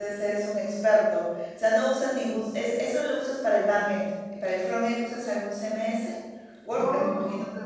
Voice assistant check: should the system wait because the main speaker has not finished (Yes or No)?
No